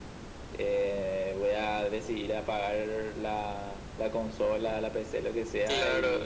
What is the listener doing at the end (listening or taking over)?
taking over